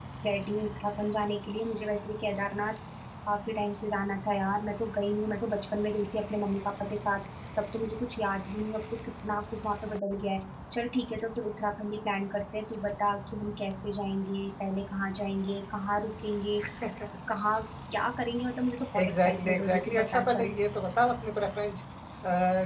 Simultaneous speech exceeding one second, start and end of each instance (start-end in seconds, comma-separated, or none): 19.0-20.5